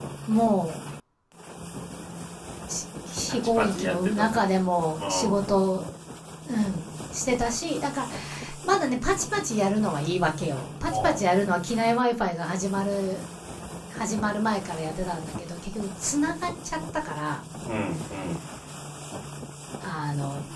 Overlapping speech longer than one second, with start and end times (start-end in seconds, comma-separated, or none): 3.3-4.5